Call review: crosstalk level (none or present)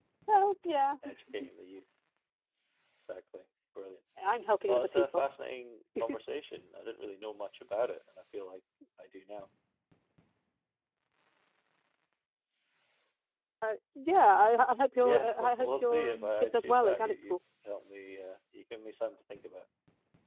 present